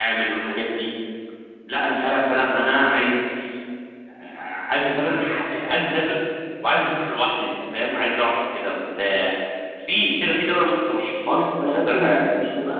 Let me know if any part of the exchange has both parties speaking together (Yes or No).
Yes